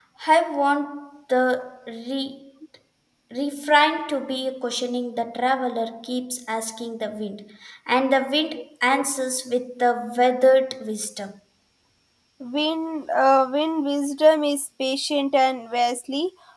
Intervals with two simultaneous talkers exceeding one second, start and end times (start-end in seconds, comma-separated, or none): none